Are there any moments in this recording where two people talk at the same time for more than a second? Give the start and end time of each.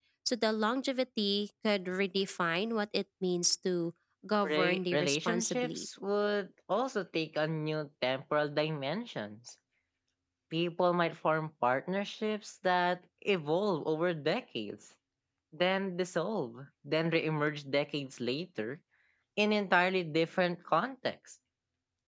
4.4-5.8

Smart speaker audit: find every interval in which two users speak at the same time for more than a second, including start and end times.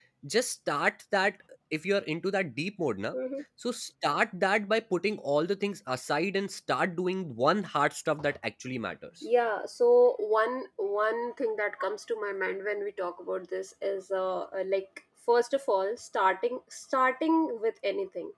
none

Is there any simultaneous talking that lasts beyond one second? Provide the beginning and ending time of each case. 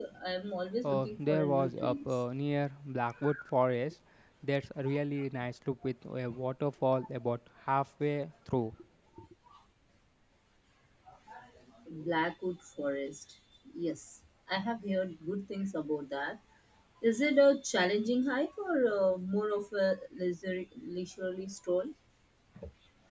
0.8-2.1

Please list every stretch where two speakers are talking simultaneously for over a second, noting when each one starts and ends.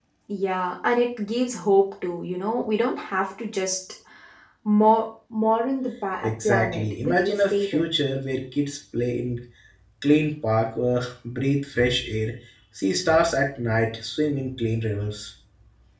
6.2-7.8

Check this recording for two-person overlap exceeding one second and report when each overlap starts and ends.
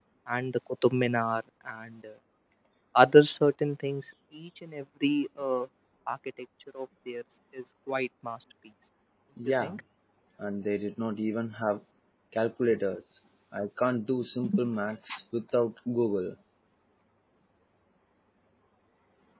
none

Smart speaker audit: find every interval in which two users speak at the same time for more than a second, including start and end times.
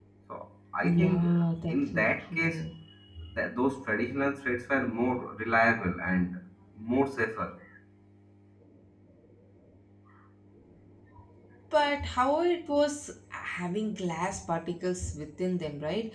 0.8-2.6

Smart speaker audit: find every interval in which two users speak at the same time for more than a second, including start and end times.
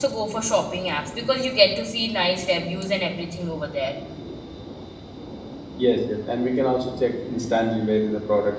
none

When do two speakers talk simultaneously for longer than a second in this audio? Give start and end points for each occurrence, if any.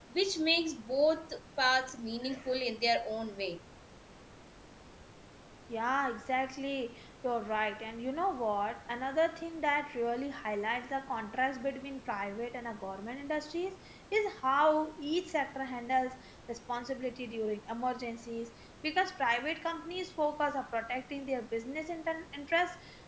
none

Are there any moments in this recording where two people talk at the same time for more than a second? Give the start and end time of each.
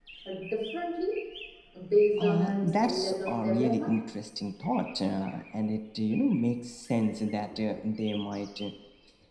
2.2-3.9

